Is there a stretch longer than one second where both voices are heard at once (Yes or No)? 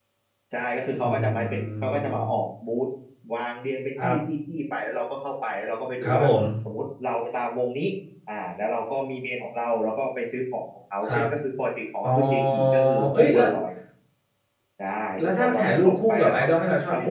Yes